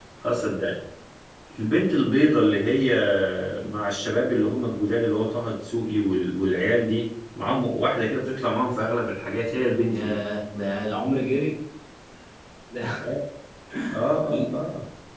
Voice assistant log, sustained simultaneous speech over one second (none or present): none